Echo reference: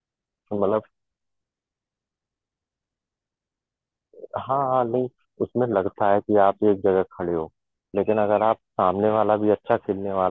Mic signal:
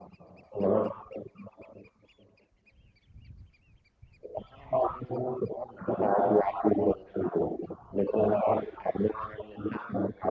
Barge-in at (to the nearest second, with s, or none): none